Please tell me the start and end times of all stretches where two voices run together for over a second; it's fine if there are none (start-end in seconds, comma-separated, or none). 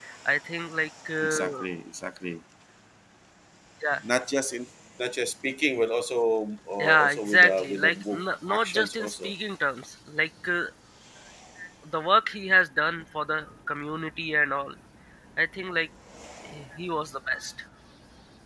6.8-9.3